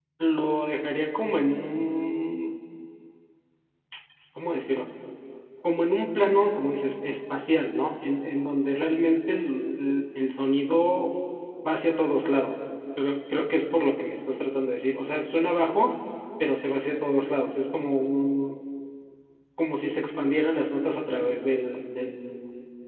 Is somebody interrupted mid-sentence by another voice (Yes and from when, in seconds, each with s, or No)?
No